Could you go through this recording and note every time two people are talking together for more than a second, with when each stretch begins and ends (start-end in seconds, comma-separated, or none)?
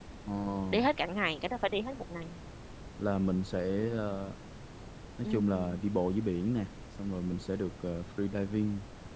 none